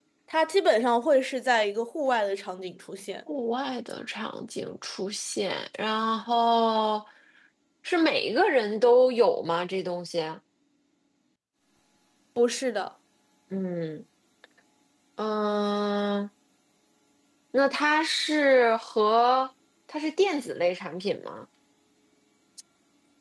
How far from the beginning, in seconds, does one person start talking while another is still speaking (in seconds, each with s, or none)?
none